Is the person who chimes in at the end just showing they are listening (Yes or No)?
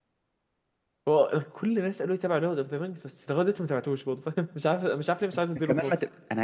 No